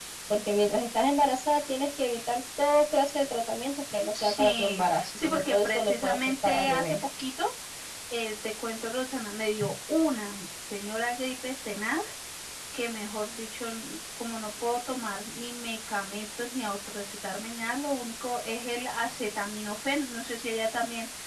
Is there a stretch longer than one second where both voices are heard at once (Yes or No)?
Yes